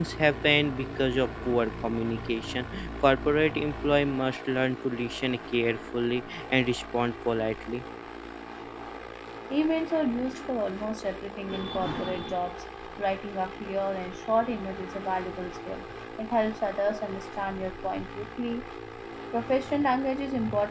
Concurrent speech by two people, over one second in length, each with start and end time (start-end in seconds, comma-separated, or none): none